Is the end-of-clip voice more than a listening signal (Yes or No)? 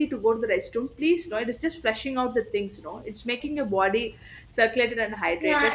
Yes